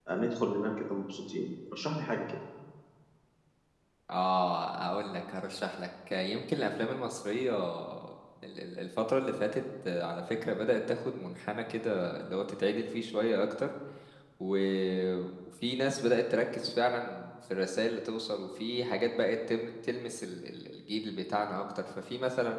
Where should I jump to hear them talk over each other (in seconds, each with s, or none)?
none